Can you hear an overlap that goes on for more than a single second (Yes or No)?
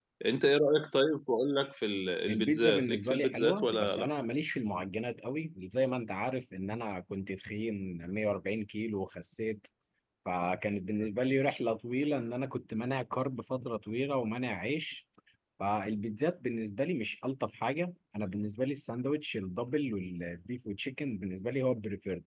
Yes